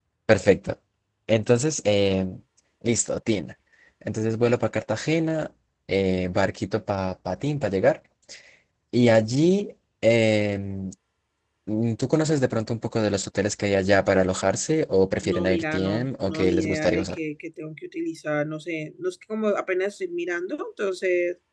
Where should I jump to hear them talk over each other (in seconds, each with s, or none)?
15.2 s